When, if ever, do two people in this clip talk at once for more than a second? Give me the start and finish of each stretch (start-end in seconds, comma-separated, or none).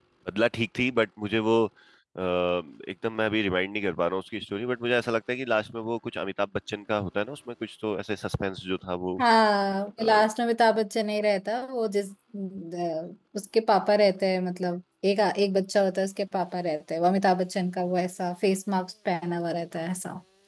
none